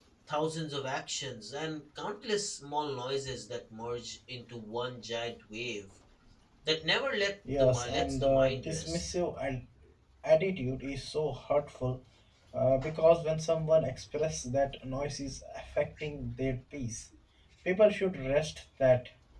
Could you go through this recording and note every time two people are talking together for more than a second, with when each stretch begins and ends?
7.6-9.0

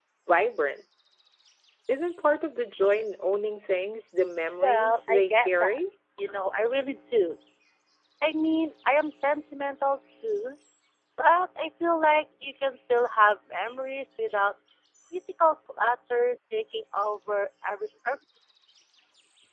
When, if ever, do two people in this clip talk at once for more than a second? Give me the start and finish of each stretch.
4.6-5.8

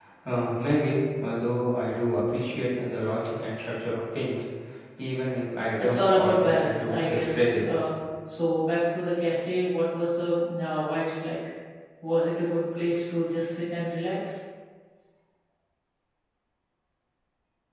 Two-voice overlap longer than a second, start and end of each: 5.8-7.6

